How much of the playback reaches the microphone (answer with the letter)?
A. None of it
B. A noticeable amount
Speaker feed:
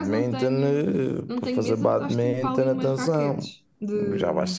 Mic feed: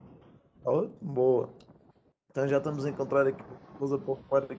A